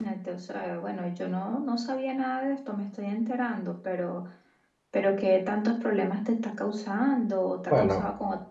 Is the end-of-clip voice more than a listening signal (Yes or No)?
Yes